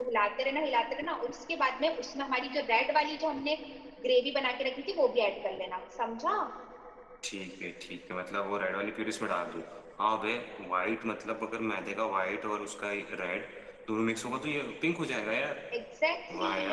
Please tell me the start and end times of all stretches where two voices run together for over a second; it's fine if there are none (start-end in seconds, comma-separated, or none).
none